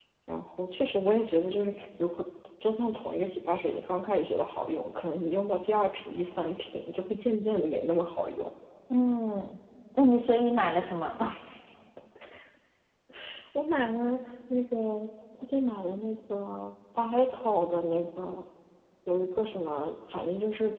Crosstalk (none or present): none